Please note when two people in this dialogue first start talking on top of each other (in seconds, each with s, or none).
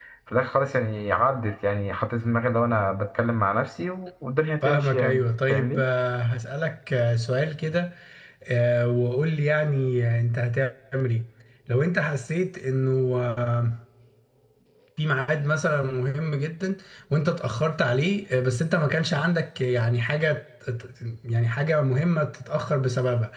4.6 s